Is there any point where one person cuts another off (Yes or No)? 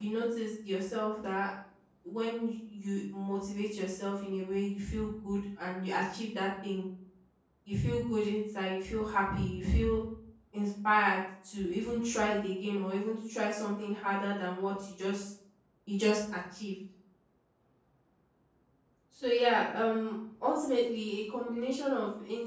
No